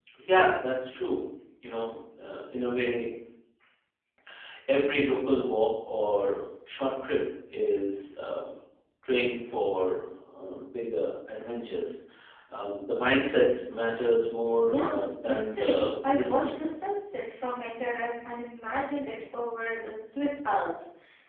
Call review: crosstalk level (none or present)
present